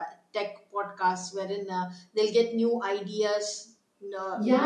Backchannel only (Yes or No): No